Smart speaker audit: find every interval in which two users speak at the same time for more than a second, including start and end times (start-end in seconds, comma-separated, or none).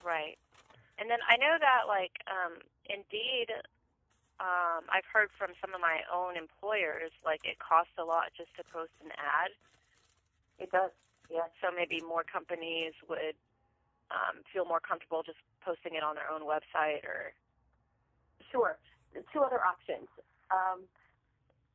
none